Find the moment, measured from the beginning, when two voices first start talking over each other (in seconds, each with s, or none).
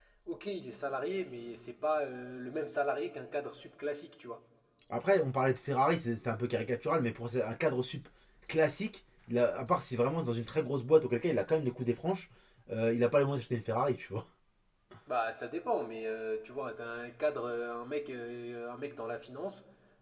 none